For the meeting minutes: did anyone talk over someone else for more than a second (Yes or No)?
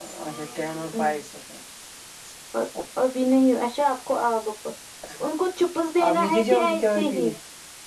Yes